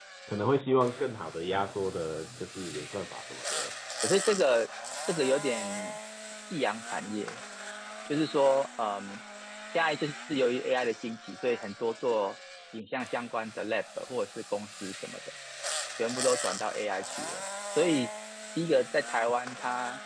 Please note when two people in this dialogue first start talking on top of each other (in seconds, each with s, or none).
none